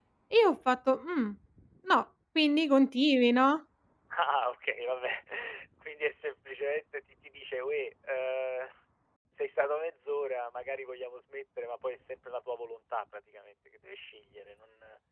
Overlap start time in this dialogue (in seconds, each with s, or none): none